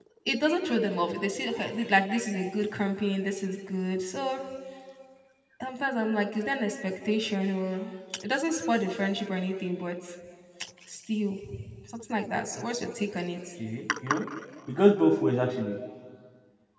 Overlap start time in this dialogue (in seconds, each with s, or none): none